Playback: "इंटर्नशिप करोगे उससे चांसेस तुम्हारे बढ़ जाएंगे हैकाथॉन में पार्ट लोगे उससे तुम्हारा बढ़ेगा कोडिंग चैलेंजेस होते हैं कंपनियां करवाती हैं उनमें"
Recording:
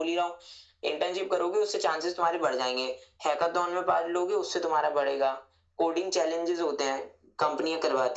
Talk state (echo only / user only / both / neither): echo only